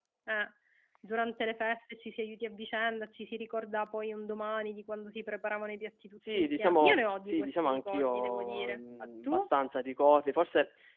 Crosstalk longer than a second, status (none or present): present